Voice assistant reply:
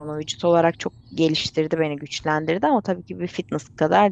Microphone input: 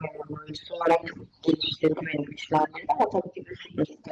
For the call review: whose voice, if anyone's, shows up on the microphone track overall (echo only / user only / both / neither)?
echo only